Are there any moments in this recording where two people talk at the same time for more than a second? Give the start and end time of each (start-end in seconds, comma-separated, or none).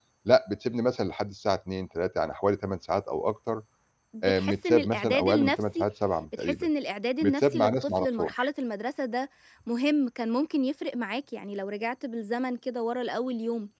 4.2-5.8, 7.2-8.5